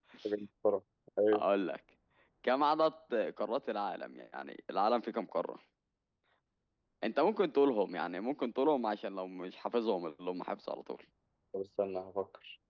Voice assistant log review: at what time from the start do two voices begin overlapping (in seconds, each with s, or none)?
none